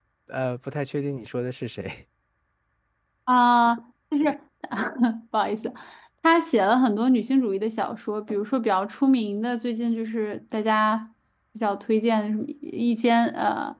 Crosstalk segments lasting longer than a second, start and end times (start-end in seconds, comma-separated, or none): none